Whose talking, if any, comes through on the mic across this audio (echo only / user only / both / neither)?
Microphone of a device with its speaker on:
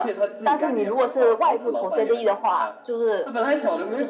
both